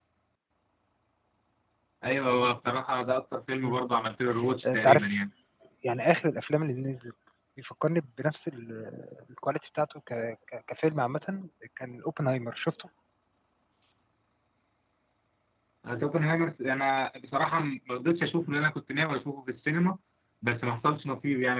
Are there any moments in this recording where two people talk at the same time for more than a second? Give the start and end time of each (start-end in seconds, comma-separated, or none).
none